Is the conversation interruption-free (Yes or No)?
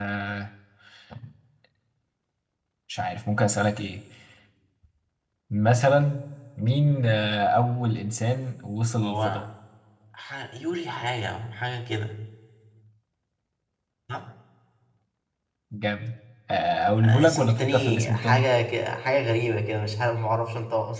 No